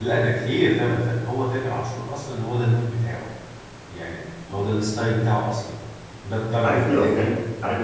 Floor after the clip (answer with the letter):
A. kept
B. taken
B